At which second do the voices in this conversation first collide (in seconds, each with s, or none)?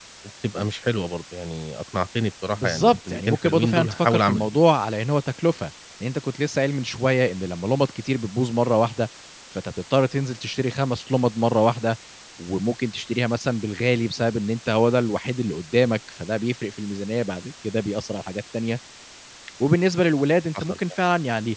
2.5 s